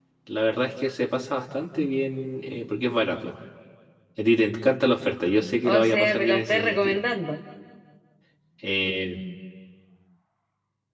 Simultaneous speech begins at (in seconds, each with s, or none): 5.6 s